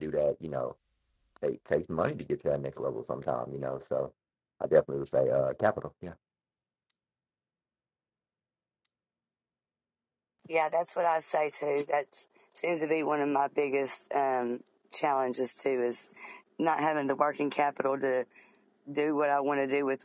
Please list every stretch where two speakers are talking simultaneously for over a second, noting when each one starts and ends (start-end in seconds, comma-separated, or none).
none